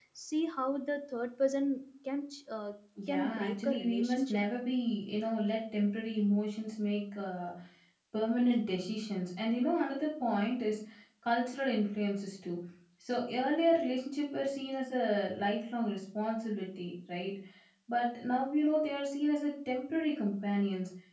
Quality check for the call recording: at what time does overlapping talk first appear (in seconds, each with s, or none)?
3.1 s